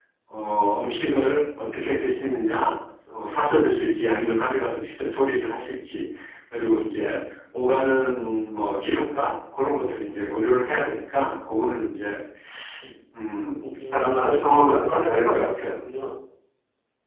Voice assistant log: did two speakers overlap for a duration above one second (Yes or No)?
Yes